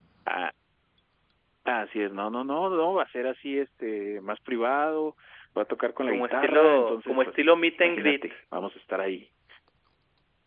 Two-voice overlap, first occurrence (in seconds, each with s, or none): 6.0 s